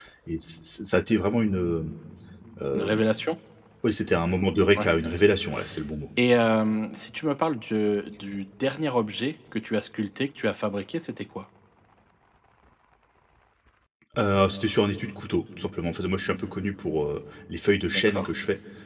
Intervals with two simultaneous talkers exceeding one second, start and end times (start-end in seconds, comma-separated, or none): none